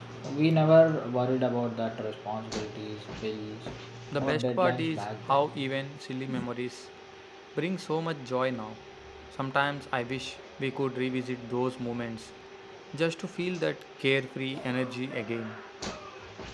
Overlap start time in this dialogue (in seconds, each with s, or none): 4.2 s